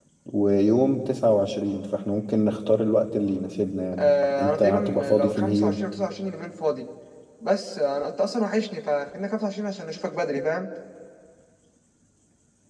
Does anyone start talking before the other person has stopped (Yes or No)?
Yes